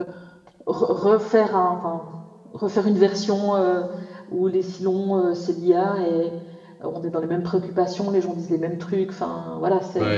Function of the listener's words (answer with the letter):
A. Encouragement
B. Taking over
A